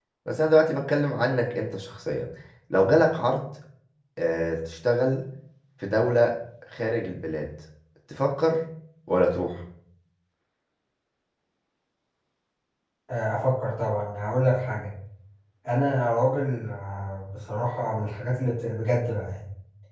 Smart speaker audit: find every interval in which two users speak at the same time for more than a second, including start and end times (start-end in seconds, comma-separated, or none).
none